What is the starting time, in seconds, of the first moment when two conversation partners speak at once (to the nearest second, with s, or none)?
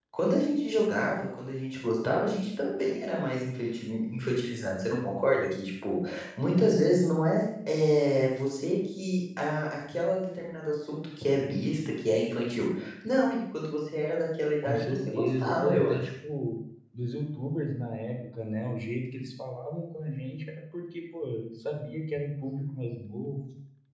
15 s